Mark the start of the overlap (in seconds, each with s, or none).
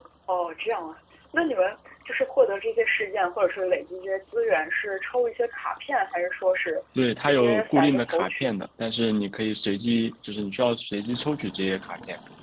7.3 s